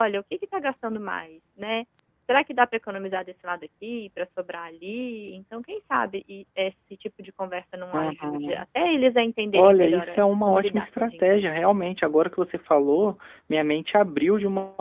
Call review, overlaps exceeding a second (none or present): present